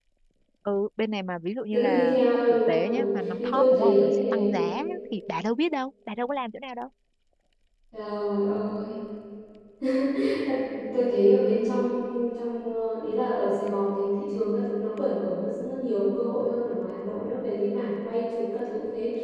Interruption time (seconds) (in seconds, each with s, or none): 1.7 s